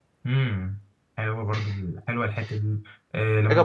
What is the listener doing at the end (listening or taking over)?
listening